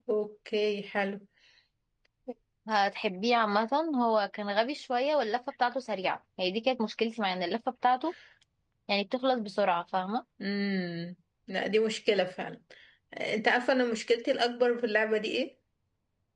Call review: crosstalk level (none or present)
none